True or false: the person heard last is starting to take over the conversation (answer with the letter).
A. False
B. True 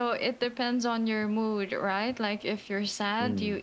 A